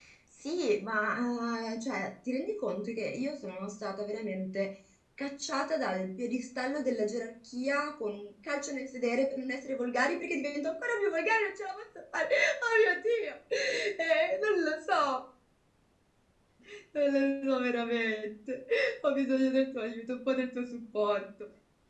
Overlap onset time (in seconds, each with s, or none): none